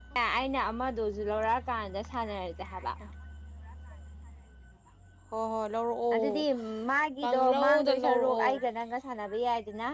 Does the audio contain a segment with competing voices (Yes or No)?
Yes